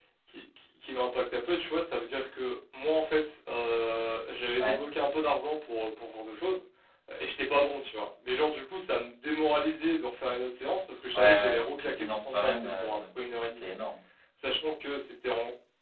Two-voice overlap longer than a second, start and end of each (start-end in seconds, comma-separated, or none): 11.1-13.0